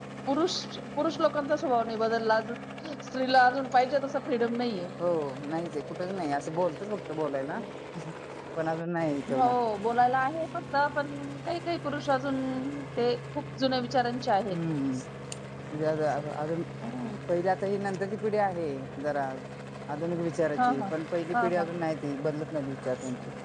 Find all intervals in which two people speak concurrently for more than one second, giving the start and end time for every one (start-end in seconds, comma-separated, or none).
none